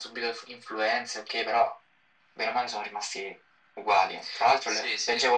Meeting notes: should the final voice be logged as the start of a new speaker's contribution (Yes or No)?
No